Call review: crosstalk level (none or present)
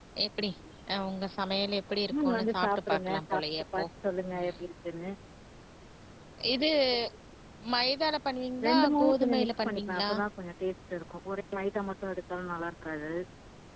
present